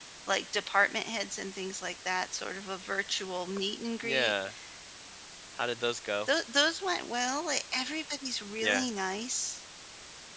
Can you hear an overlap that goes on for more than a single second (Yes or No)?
No